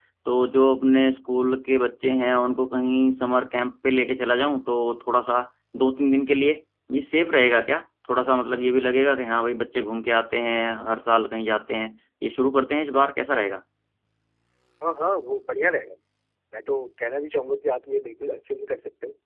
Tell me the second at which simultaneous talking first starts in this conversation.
none

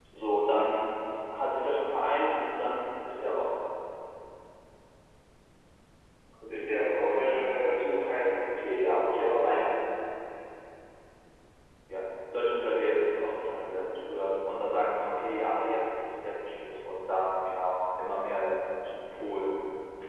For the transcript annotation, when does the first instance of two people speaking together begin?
6 s

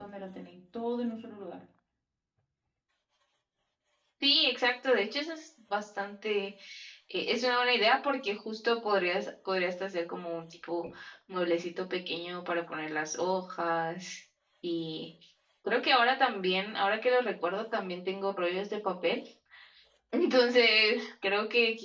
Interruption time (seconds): none

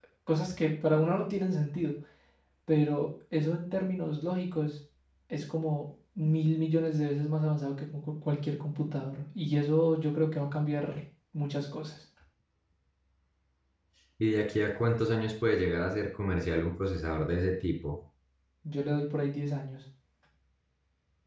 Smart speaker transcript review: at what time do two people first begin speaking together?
none

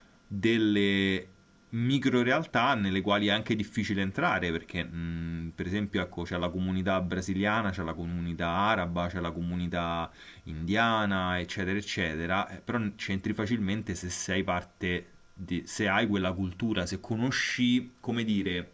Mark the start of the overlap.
none

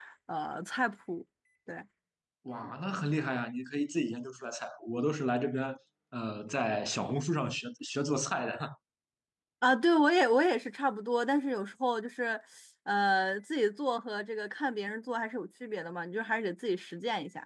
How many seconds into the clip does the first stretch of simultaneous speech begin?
none

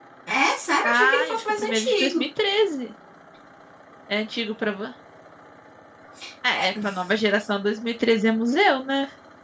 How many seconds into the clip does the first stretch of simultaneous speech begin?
1 s

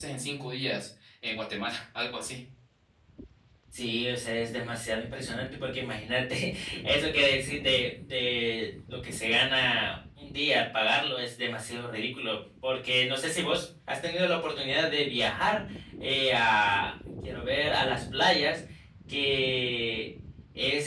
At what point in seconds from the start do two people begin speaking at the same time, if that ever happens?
none

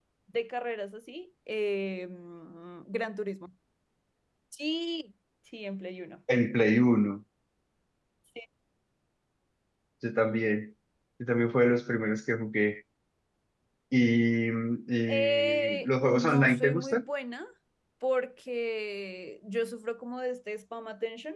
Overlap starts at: 15 s

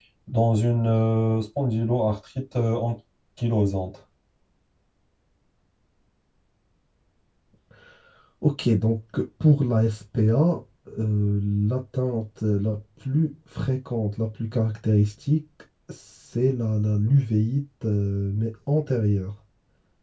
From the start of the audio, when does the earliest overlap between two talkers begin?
none

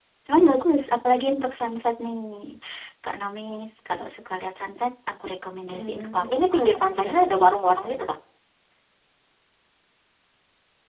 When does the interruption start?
6 s

